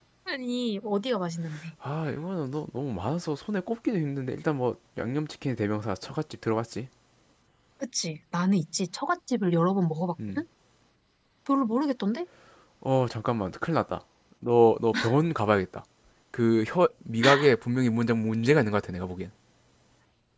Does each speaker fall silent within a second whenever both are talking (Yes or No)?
Yes